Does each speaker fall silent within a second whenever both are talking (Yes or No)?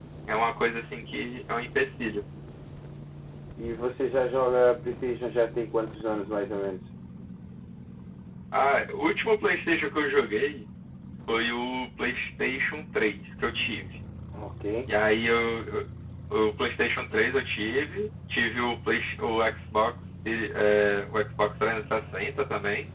Yes